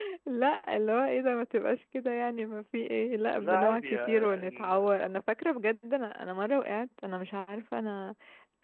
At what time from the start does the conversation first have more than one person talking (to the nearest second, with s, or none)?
3 s